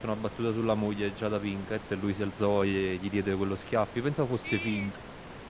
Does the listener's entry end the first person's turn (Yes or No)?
Yes